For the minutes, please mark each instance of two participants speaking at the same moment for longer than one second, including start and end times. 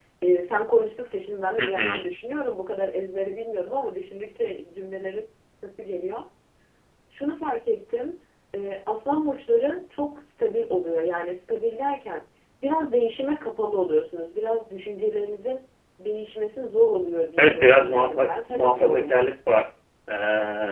17.4-19.3

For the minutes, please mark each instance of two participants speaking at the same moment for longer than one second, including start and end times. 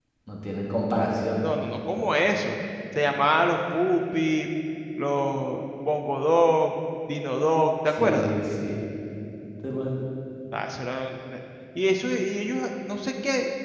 none

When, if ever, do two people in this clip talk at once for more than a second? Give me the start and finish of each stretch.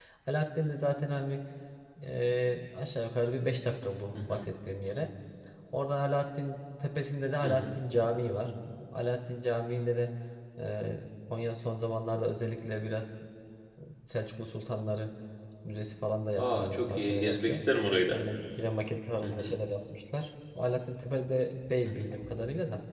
16.4-17.6

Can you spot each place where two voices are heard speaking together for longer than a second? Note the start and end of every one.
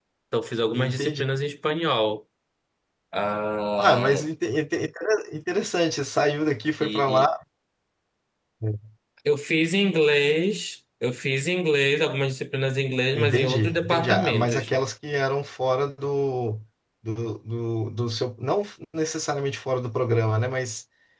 13.2-14.7

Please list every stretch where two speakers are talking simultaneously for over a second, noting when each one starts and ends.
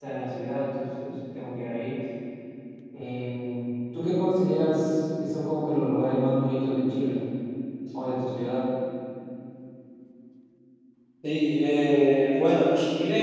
none

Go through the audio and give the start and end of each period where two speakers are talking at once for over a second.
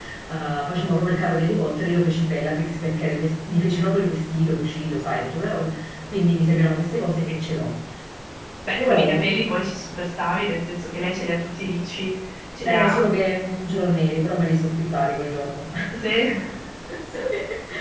none

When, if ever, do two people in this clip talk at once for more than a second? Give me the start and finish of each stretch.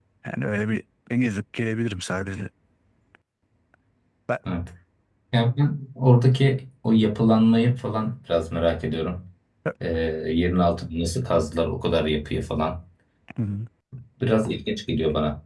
none

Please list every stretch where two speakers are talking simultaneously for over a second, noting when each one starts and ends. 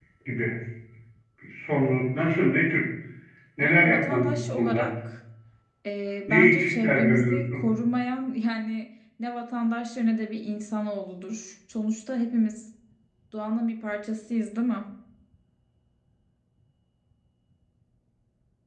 3.6-4.9, 6.3-7.7

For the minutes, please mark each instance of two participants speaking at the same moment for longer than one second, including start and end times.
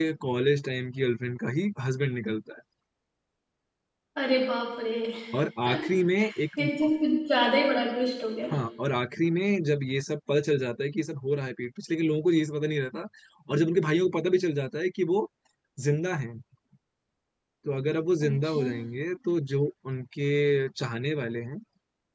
none

